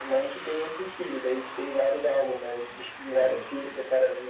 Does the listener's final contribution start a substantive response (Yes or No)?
No